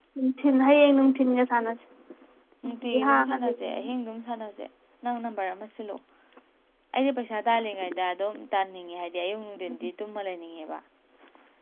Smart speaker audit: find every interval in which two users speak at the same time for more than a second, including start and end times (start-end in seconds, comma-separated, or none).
2.6-3.9